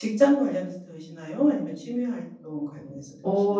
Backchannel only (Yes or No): No